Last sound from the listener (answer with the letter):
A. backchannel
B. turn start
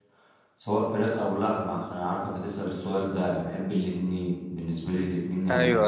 A